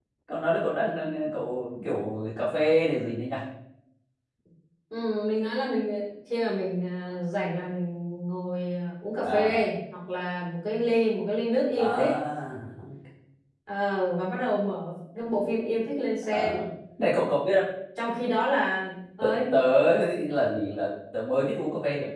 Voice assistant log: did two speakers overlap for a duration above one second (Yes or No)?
No